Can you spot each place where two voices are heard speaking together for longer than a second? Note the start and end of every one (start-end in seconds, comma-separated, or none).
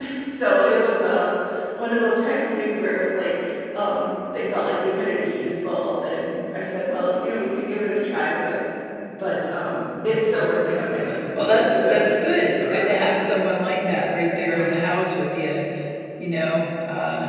11.3-13.4